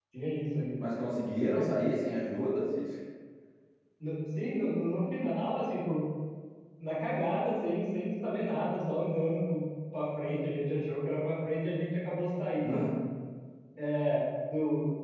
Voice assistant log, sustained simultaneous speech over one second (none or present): none